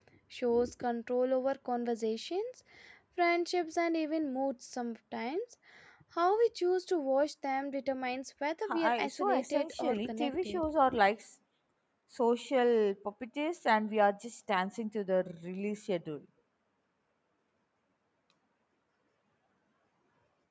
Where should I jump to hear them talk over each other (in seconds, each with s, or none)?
8.7 s